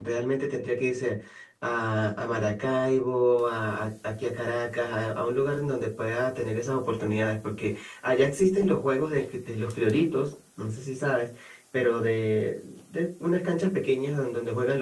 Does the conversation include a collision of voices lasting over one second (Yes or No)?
No